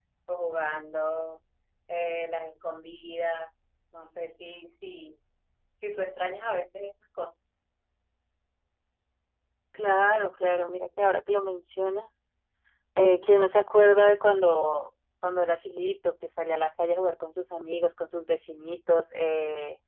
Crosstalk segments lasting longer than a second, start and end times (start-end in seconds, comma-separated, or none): none